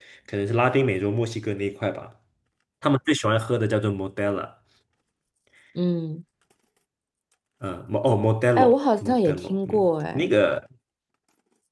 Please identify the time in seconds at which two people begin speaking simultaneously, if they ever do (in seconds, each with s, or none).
8.6 s